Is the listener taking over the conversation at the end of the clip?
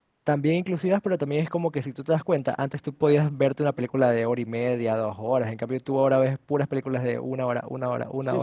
Yes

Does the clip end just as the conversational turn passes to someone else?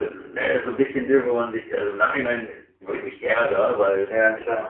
No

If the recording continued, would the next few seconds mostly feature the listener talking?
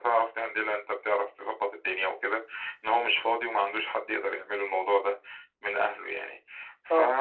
No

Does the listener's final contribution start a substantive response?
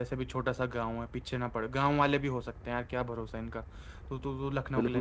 Yes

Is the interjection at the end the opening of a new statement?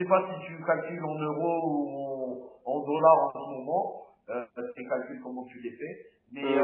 No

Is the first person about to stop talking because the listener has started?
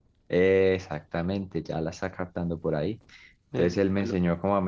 No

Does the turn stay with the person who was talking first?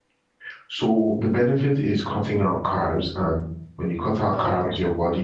Yes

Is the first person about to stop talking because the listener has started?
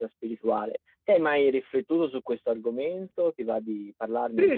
Yes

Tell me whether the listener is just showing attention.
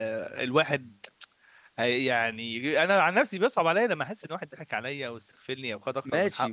No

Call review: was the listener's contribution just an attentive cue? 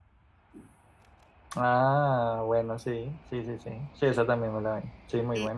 No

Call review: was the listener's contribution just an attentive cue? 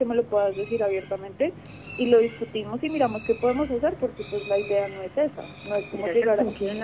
No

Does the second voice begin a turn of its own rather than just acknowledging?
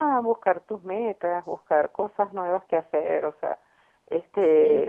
No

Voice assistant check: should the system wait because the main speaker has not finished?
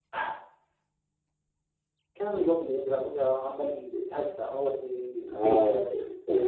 No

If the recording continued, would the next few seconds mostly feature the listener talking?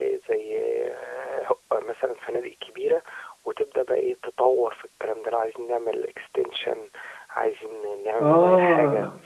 Yes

